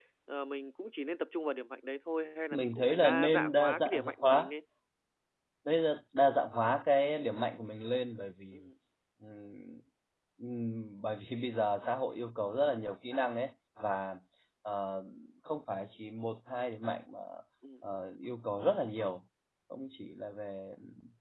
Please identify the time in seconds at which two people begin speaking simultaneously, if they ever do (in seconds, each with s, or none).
2.5 s